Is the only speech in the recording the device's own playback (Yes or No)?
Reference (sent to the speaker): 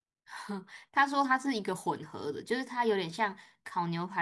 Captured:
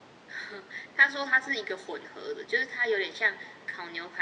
Yes